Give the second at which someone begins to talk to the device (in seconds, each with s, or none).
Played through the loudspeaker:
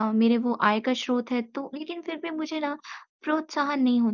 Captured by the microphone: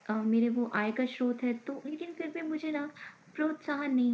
none